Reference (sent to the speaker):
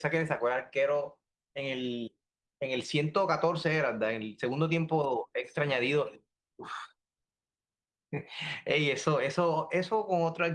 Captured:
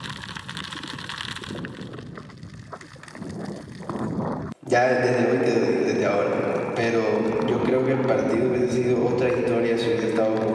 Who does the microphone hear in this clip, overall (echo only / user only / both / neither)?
user only